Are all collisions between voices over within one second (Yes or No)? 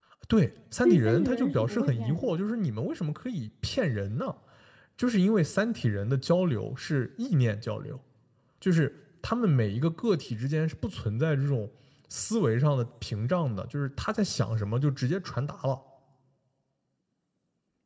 No